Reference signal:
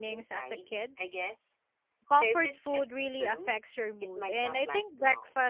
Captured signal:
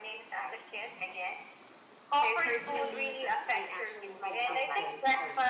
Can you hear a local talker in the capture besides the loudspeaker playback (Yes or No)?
Yes